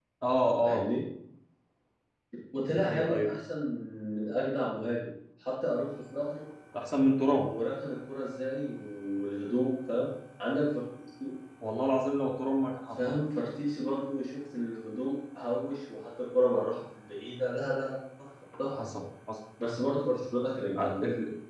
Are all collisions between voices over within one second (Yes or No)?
Yes